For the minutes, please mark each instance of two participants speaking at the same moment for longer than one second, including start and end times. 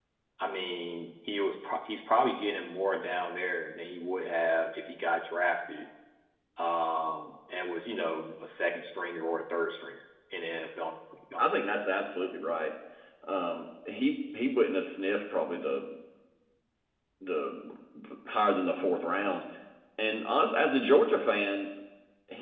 none

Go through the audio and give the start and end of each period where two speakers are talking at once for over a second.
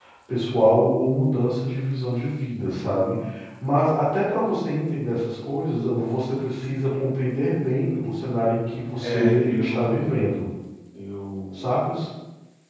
9.0-10.3

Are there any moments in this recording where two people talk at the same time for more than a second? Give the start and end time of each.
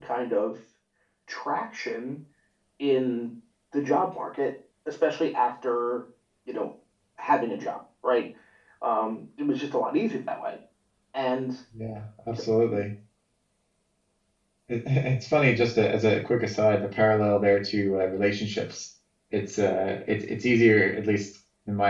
none

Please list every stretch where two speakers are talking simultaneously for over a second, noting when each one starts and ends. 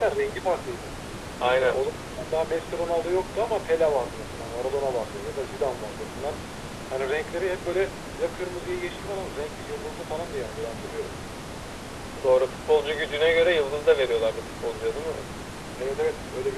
none

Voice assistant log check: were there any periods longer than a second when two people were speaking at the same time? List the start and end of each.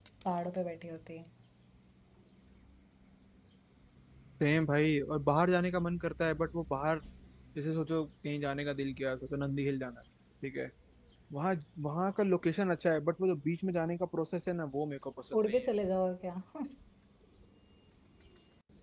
none

